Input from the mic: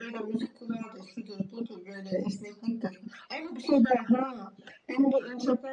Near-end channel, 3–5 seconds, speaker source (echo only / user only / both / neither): echo only